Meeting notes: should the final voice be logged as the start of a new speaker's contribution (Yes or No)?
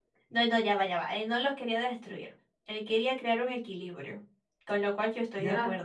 Yes